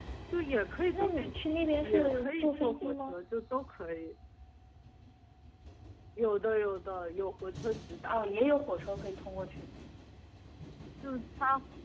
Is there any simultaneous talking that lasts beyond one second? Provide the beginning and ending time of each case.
0.9-3.1

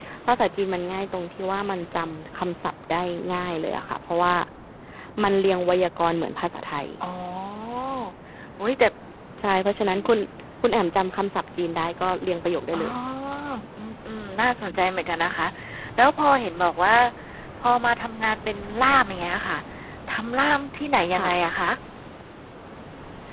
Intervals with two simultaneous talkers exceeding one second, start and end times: none

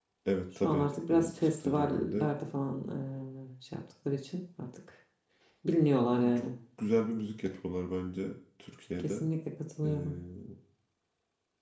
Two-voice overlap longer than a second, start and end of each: 0.6-2.3

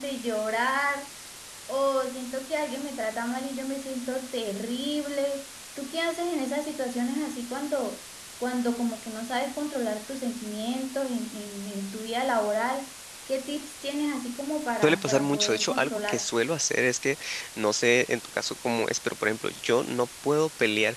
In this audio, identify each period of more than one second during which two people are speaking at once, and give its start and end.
14.8-16.2

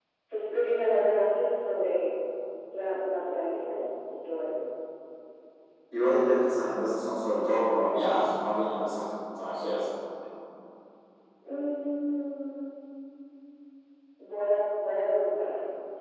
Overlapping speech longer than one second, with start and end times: none

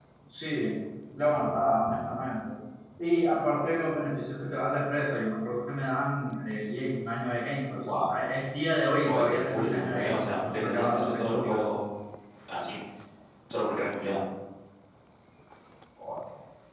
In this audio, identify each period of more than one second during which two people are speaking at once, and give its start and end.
9.0-11.6

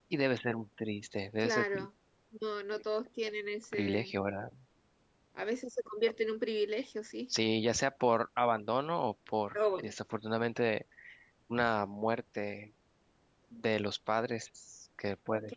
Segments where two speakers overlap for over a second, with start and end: none

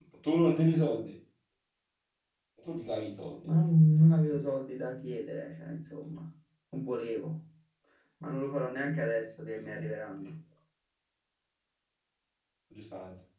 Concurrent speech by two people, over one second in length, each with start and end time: none

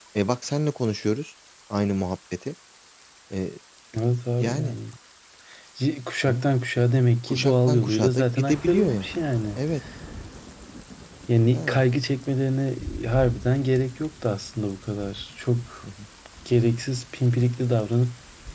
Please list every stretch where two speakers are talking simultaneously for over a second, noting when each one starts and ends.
7.3-9.1

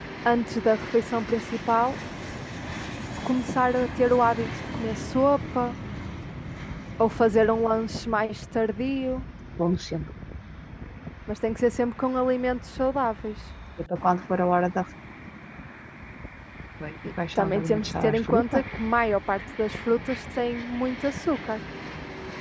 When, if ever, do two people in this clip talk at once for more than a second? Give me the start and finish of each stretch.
17.4-18.6

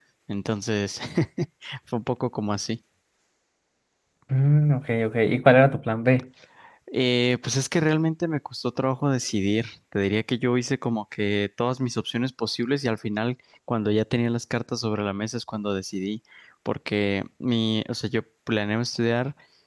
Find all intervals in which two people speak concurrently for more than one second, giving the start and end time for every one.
none

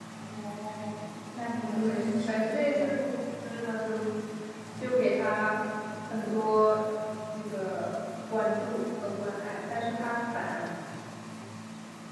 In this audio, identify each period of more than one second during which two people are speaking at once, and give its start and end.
1.7-3.0

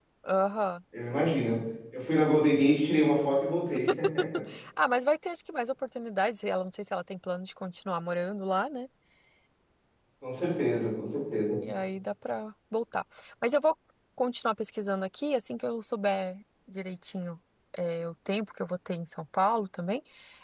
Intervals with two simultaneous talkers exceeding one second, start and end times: none

